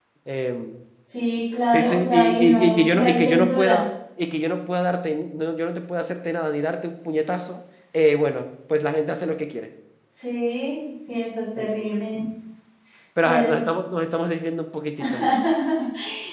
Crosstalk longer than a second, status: present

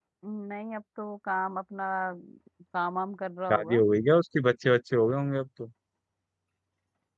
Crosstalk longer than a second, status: none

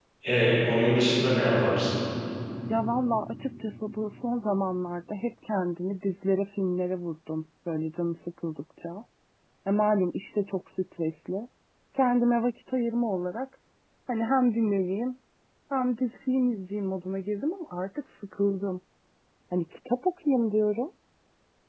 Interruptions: none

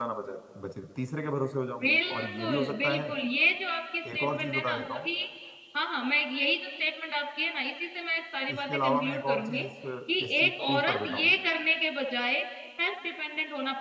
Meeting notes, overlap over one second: present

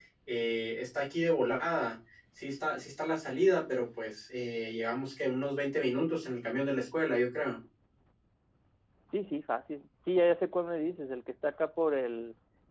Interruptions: none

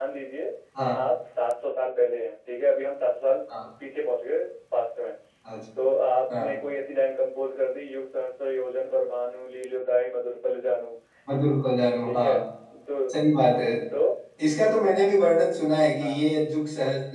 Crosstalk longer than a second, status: none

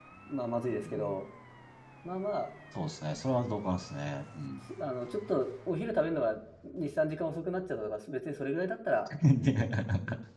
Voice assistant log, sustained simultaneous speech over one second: none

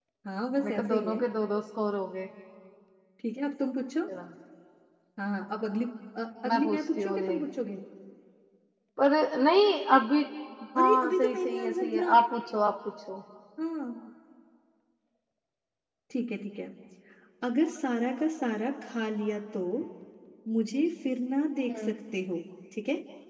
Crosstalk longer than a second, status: present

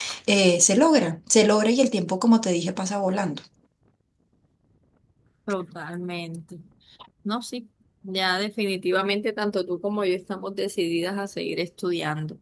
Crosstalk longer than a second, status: none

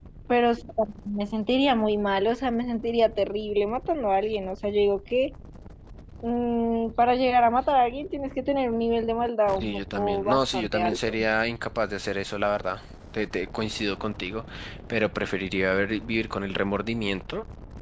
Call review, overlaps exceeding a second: present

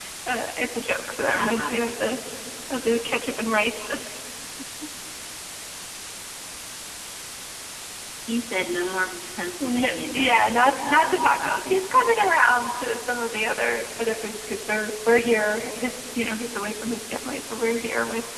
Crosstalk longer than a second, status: present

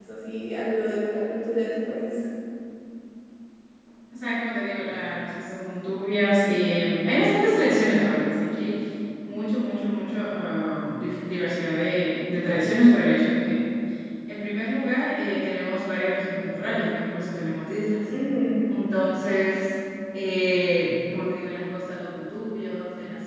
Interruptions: none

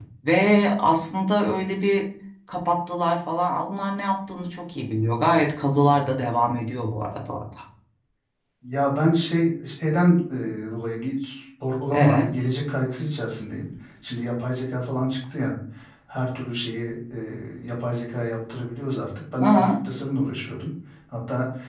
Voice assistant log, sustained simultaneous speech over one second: none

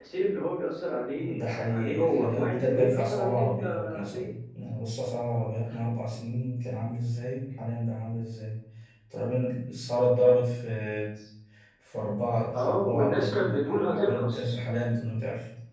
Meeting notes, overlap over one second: present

